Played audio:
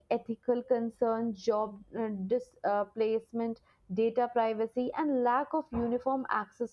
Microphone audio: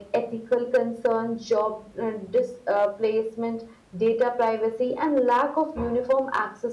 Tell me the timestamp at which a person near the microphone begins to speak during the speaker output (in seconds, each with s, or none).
none